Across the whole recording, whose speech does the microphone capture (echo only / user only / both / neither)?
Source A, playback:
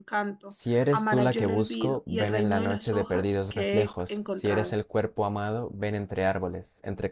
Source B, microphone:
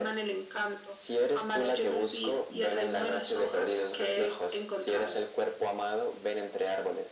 echo only